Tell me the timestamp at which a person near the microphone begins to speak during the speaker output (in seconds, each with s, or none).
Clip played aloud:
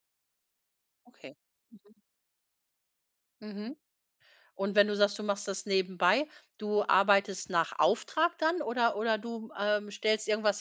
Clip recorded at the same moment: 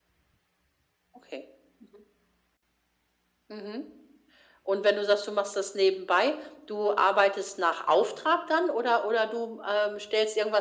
none